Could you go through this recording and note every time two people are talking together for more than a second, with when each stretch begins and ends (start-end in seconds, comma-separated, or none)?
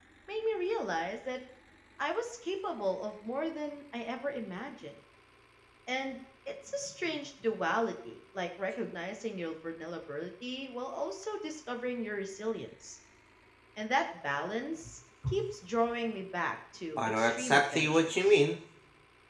17.0-18.4